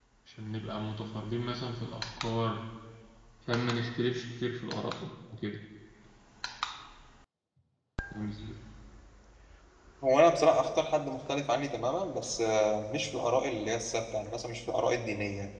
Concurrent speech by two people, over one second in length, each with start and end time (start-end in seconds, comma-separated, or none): none